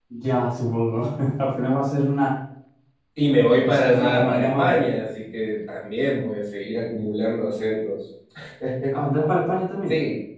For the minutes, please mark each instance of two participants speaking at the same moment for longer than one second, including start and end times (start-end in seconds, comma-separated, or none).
3.6-4.8